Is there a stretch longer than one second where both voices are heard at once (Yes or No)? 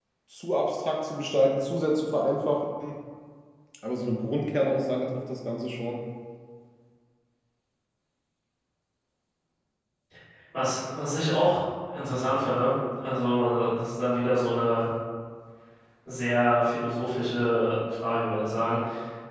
No